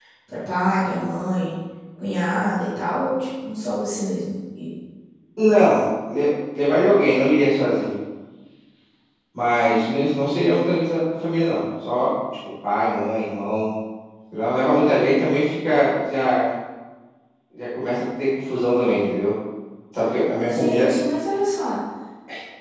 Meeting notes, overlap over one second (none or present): none